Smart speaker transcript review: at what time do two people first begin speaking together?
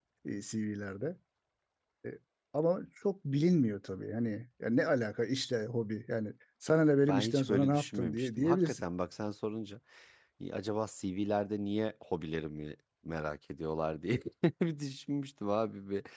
7.1 s

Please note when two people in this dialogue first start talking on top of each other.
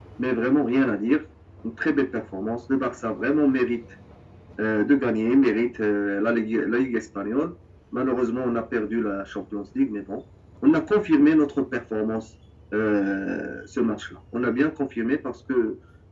none

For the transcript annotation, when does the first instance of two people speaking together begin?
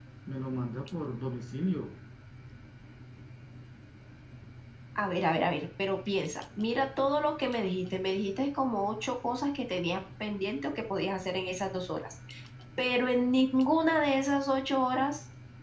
none

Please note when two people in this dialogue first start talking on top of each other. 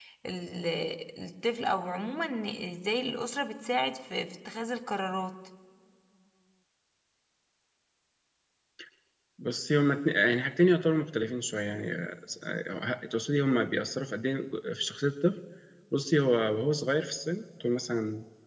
none

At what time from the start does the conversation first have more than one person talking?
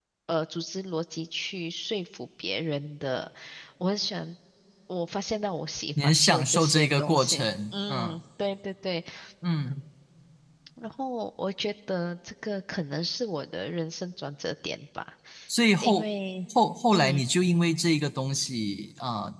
6.0 s

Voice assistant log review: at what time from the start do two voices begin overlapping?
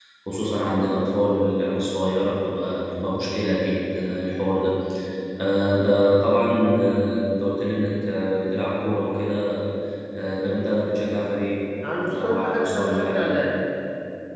12.1 s

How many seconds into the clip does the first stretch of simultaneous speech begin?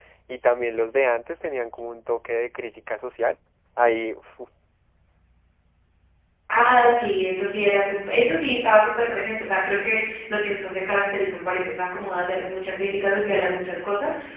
none

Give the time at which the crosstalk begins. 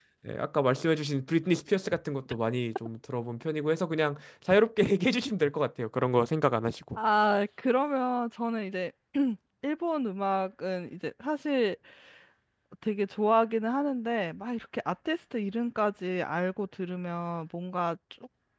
none

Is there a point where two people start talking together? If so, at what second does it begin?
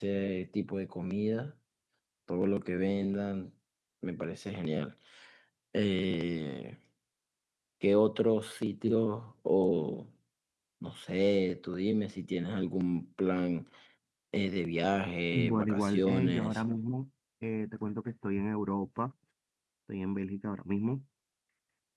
15.3 s

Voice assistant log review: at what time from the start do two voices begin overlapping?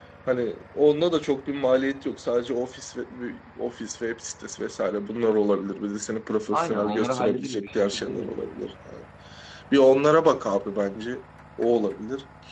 6.5 s

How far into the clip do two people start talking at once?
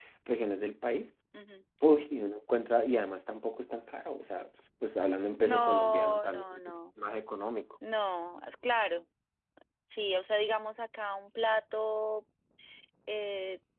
5.4 s

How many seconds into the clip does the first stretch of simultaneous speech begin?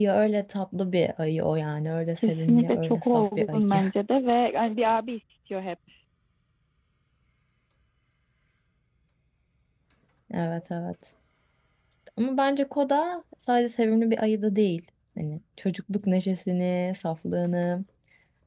2.1 s

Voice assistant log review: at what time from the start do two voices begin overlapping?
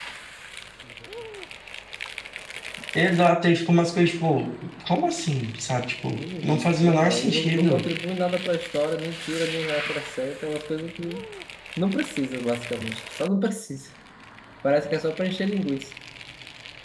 6.2 s

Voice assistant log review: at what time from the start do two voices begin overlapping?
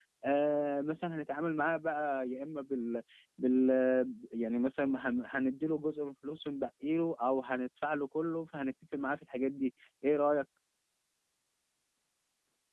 none

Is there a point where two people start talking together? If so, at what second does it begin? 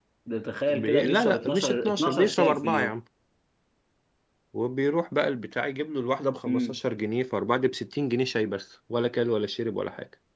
0.7 s

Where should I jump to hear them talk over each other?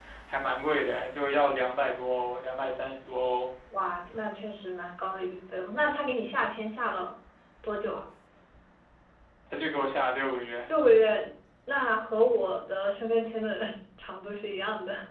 none

